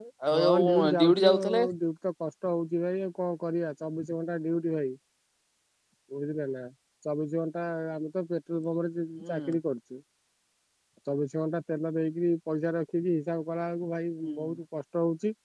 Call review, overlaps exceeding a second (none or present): present